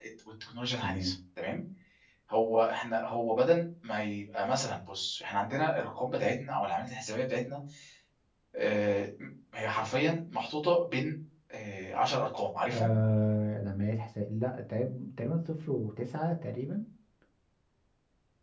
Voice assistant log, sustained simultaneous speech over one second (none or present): none